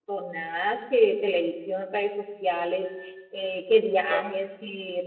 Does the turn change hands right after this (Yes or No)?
No